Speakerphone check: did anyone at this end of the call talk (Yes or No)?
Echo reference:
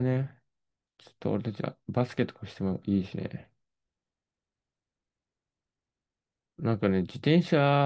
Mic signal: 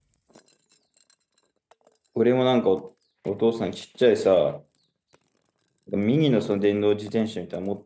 Yes